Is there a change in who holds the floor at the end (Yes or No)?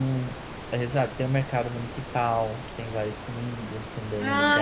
Yes